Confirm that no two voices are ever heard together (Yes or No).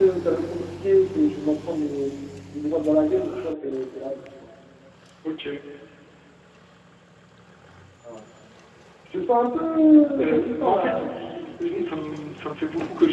No